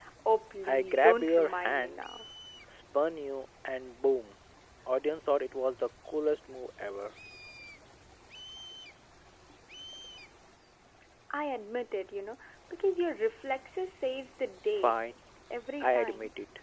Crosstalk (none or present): present